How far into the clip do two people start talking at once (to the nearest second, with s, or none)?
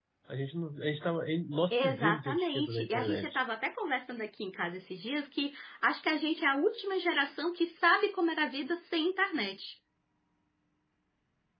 2 s